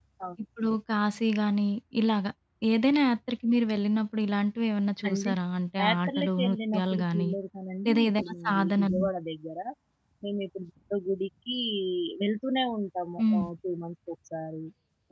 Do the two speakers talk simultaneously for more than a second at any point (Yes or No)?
Yes